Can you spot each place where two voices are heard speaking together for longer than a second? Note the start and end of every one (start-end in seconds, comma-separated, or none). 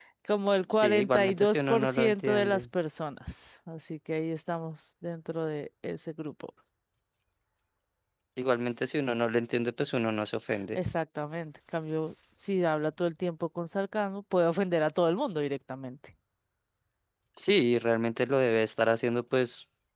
0.7-2.6